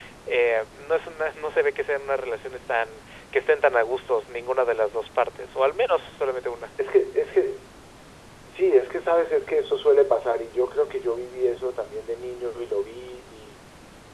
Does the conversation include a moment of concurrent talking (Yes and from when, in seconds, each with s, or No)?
No